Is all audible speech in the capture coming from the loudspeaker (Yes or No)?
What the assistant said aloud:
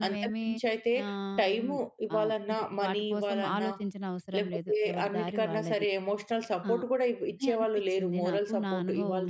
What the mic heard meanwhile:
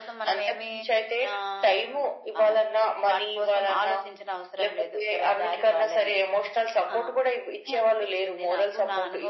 Yes